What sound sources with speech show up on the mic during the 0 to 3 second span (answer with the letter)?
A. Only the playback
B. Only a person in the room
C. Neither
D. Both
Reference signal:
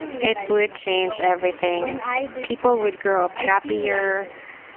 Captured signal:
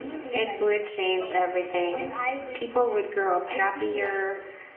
A